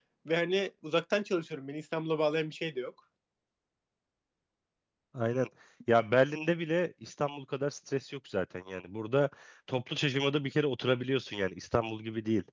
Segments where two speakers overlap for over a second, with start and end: none

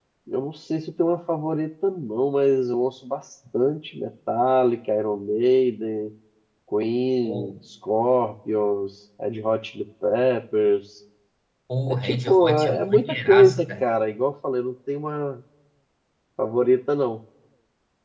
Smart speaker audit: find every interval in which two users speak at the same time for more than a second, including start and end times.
11.9-13.7

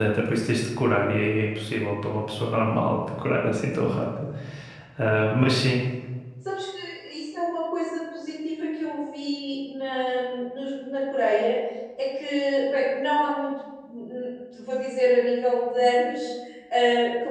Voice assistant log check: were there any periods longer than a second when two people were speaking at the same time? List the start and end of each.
none

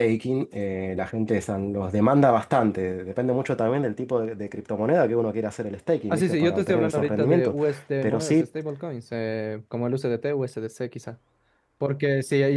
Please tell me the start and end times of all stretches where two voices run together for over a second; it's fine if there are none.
6.1-7.5

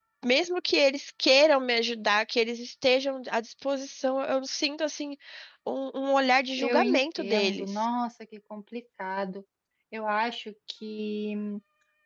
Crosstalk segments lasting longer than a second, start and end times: 6.6-7.8

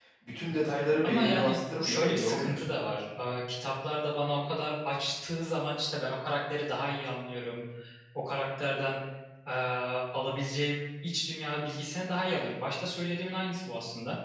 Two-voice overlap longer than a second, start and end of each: 1.0-2.7

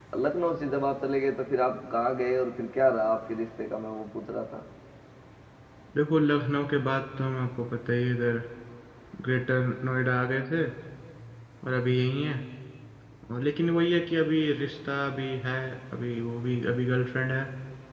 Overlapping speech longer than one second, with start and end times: none

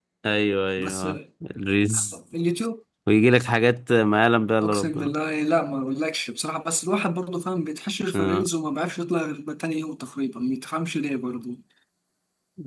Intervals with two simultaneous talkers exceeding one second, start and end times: none

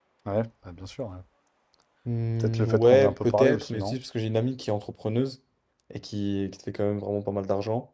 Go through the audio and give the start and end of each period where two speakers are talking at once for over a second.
2.4-4.0

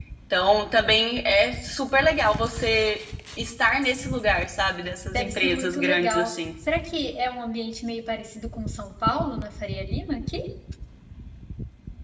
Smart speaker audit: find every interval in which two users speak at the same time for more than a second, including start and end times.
5.1-6.3

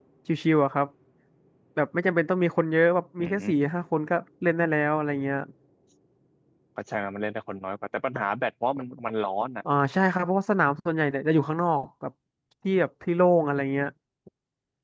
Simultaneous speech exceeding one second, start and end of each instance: none

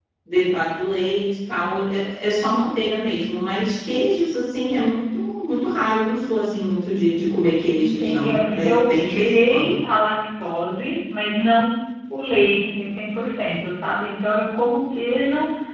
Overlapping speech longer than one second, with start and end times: 7.8-9.8

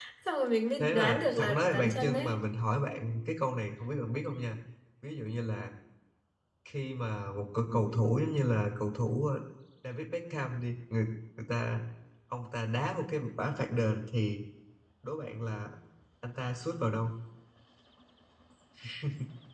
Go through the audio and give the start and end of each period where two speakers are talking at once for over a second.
0.8-2.4

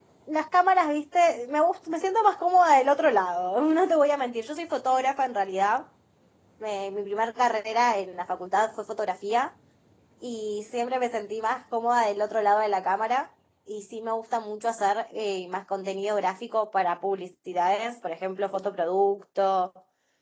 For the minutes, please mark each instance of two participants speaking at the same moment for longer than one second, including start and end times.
none

